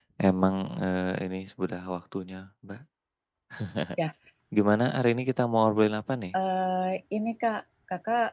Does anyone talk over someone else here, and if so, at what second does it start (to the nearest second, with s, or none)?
none